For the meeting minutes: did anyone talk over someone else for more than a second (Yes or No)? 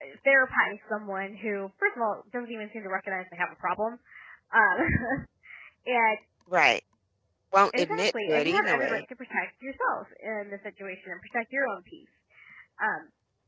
Yes